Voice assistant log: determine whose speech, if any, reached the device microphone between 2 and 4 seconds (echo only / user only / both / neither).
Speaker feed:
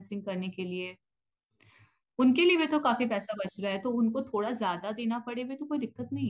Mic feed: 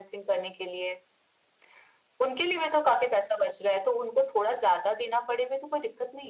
echo only